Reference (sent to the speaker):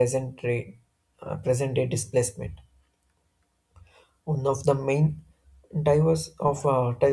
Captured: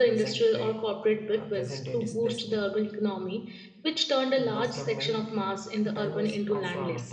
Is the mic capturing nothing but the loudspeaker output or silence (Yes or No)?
No